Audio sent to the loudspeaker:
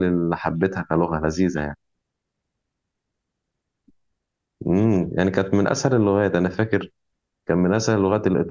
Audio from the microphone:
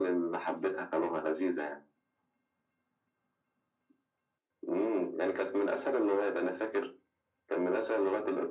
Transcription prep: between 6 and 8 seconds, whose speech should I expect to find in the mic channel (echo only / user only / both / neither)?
echo only